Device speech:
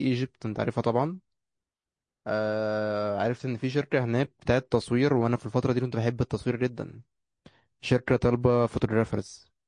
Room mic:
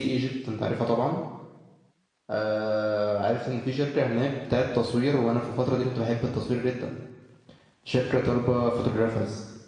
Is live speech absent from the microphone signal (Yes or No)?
Yes